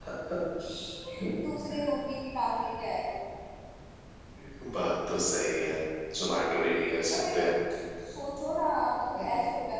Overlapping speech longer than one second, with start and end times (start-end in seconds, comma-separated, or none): none